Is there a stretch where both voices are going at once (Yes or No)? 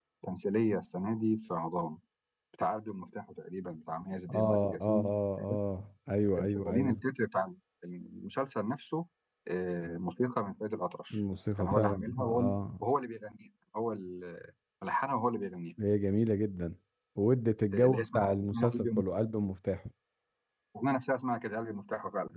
Yes